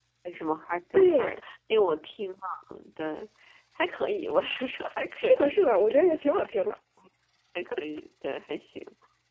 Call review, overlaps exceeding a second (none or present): none